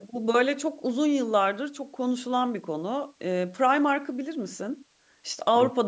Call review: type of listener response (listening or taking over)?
listening